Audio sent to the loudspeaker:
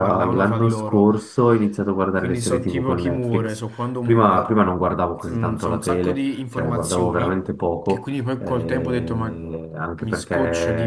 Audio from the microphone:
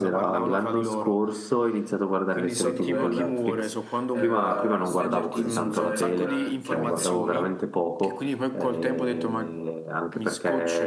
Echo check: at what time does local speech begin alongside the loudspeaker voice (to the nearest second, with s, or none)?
3 s